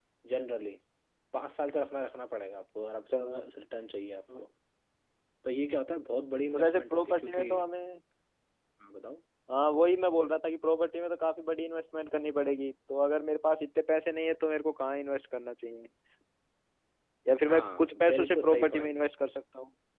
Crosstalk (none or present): present